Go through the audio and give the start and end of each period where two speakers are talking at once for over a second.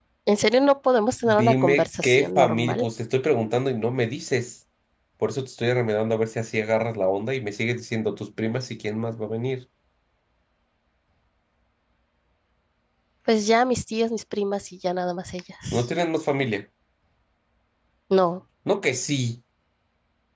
1.2-2.8

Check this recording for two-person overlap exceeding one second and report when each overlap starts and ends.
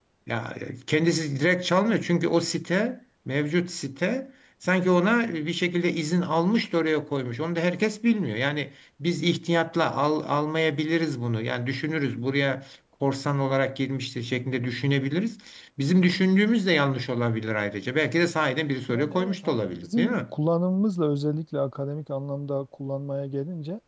18.9-20.2

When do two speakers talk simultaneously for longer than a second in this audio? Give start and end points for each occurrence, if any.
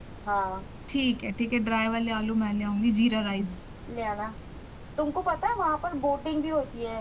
none

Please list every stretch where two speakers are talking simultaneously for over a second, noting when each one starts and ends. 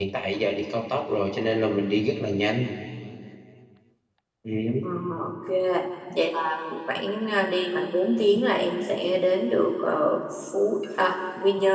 none

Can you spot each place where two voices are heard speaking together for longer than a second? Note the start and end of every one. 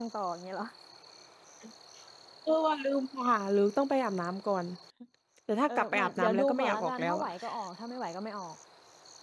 5.7-7.3

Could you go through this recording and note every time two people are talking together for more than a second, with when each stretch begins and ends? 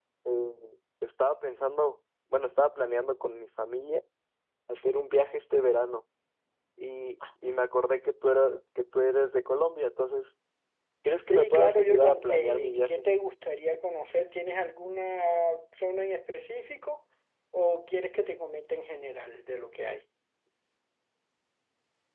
11.3-13.1

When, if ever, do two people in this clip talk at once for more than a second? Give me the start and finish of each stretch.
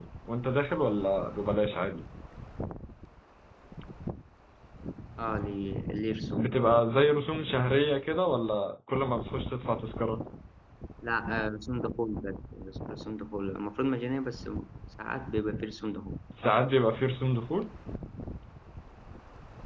none

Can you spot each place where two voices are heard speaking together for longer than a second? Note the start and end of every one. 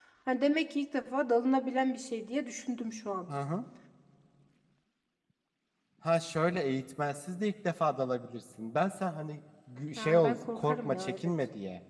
10.0-11.3

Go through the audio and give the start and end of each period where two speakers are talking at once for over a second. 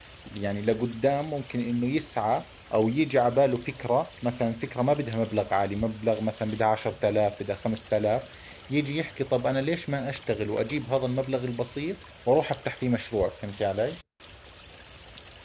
none

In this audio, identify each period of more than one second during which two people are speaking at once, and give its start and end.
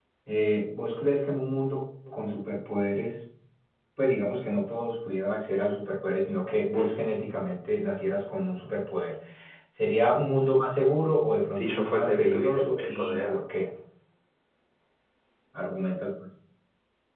11.5-13.3

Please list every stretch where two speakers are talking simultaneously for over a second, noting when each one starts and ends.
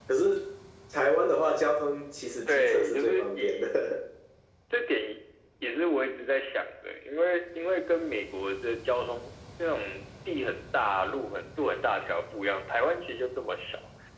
2.5-3.8

